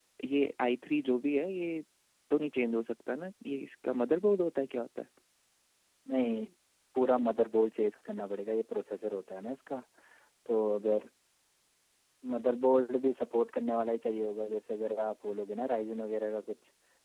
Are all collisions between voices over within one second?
Yes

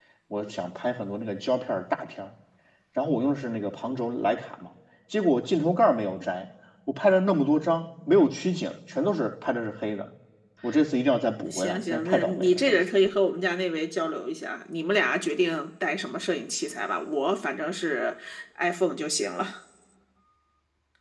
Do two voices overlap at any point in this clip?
Yes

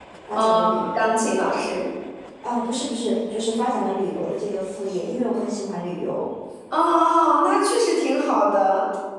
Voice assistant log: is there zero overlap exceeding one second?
Yes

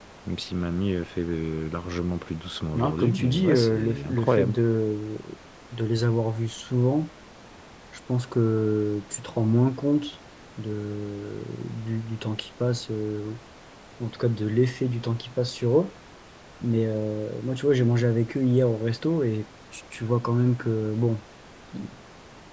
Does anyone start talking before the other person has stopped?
Yes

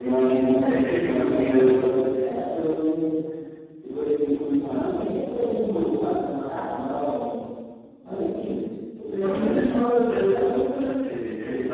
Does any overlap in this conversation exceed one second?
Yes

